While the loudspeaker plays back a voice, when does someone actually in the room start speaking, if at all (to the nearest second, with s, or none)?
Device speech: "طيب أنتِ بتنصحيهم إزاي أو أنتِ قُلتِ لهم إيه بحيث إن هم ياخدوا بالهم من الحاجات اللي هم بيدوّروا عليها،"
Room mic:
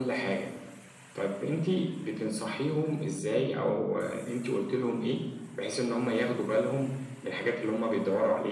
none